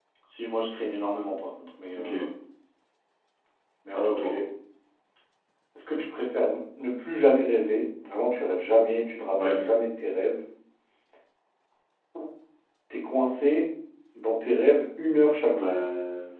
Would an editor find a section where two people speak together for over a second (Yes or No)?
No